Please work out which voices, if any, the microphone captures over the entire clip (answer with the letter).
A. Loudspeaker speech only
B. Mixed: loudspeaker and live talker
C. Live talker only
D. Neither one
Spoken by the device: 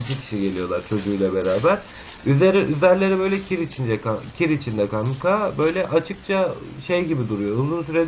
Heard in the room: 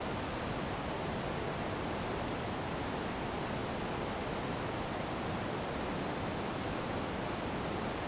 D